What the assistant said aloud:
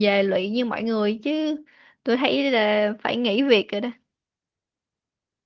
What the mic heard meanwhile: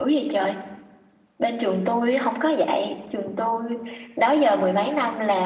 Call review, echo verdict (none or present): none